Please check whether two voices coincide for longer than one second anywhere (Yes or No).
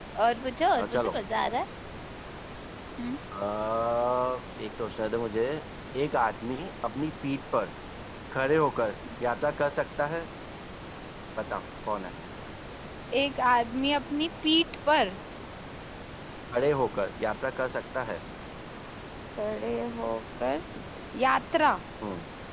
No